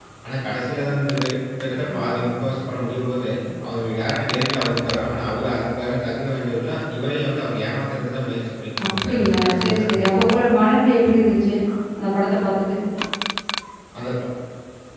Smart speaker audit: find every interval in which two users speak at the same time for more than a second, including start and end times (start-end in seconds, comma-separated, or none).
9.0-10.2